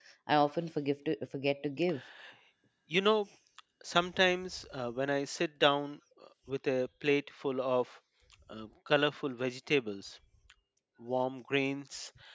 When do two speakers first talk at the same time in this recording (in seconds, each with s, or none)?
none